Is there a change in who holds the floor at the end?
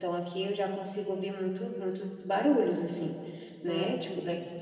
No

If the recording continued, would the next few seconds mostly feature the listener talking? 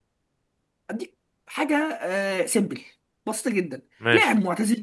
No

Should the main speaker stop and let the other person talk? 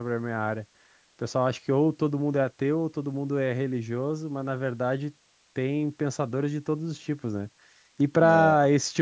No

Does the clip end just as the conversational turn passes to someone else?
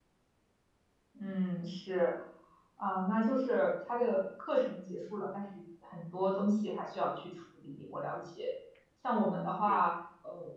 No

